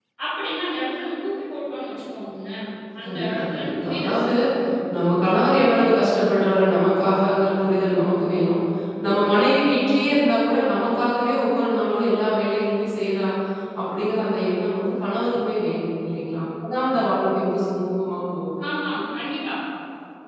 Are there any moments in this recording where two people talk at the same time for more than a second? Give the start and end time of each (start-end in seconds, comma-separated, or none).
3.0-4.3